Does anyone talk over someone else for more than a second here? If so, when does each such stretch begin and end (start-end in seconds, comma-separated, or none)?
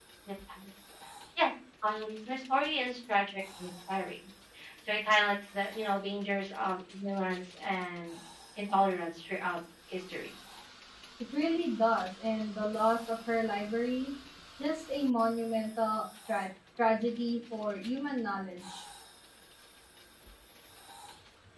none